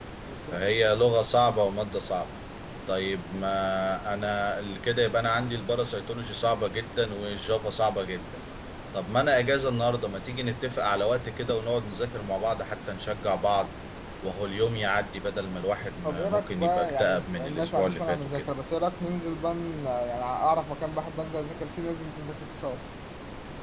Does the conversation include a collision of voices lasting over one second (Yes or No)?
Yes